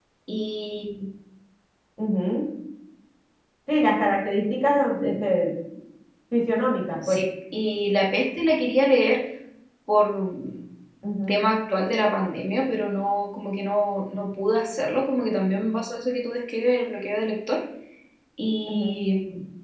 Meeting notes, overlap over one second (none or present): none